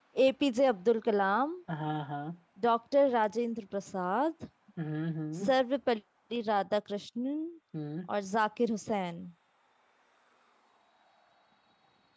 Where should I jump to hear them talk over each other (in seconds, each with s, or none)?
none